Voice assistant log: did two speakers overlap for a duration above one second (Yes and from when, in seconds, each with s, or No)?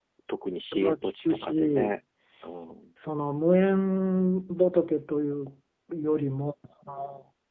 Yes, from 0.7 s